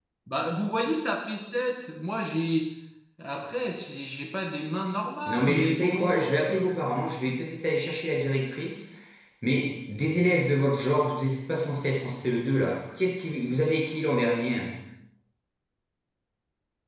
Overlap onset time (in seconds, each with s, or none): 5.3 s